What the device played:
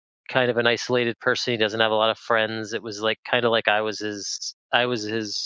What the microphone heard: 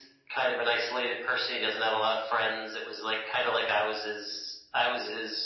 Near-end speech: none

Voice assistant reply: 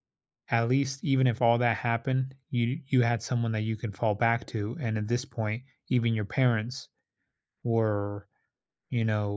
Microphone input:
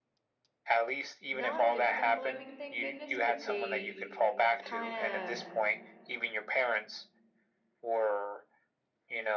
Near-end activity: present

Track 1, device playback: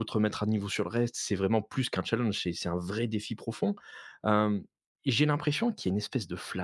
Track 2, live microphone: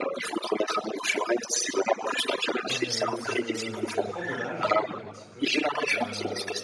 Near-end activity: present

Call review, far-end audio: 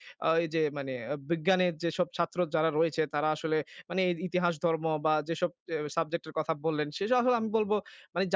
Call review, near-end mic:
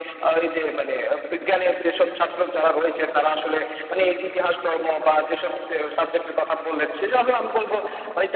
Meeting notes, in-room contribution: none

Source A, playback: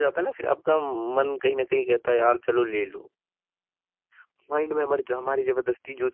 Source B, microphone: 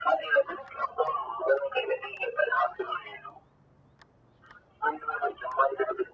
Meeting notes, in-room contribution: none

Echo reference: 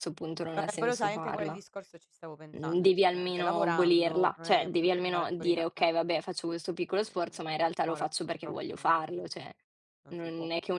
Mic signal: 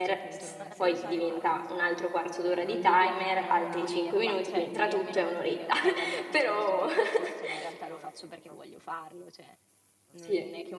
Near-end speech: present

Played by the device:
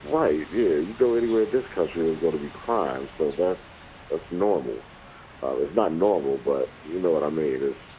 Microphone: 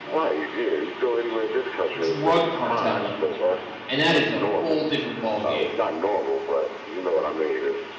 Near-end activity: present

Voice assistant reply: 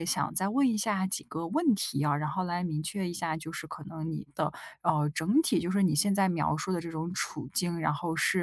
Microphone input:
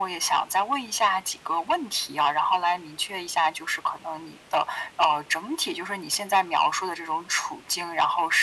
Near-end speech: none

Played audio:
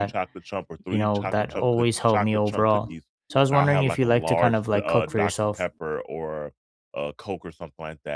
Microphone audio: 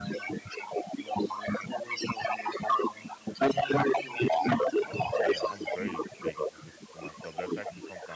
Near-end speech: present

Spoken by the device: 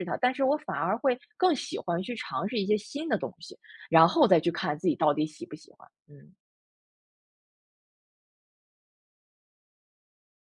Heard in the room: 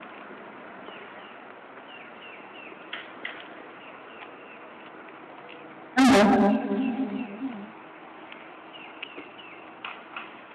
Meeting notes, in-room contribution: present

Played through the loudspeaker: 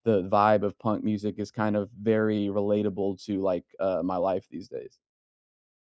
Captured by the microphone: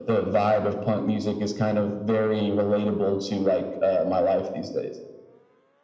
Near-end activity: none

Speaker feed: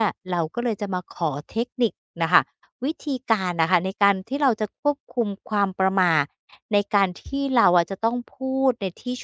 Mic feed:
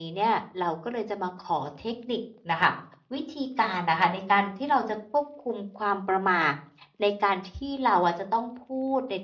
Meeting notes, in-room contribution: none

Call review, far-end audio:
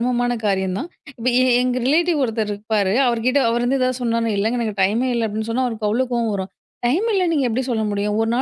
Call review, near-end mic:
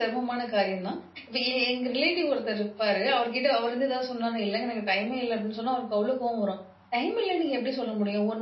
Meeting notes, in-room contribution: none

